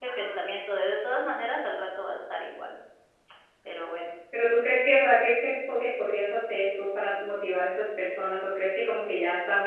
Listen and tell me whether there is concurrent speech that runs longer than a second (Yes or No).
No